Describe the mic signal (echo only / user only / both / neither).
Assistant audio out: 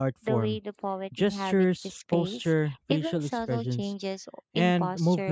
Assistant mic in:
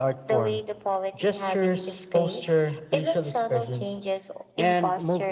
echo only